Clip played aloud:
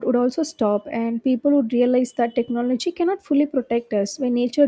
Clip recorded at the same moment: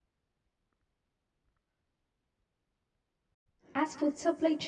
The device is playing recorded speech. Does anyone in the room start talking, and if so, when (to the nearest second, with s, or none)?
4 s